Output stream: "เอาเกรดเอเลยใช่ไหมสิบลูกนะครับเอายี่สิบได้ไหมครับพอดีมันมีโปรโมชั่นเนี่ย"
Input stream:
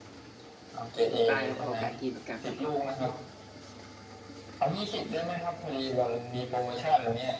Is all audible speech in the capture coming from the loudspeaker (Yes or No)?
No